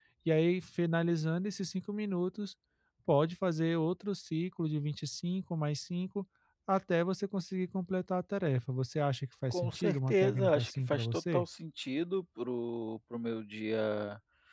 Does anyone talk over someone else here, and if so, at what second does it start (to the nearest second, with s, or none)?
10 s